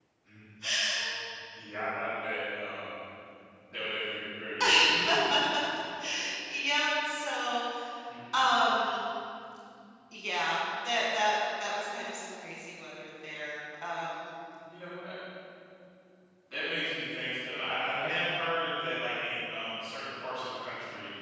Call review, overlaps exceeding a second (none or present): none